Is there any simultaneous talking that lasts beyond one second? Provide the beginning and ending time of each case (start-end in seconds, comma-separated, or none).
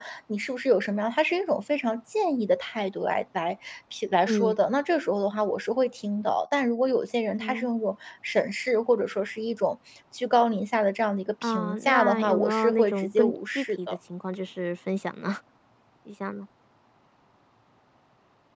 11.4-14.0